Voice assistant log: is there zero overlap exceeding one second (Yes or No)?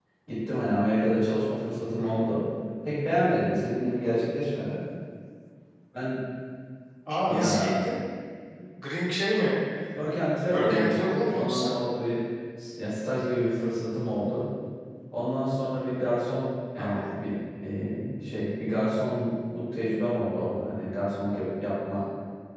No